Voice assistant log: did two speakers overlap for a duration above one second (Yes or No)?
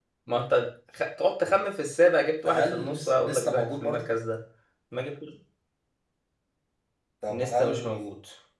Yes